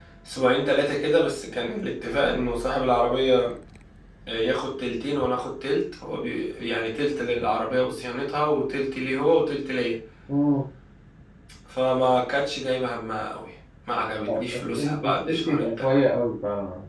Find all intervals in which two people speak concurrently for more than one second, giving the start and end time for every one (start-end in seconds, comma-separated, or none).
14.3-15.9